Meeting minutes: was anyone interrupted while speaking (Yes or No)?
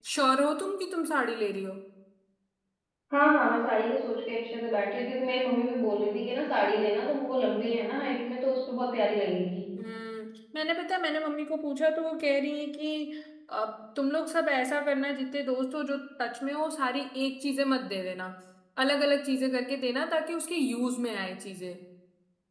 No